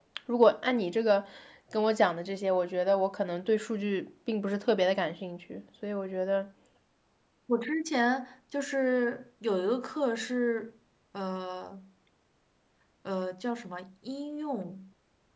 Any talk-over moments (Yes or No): No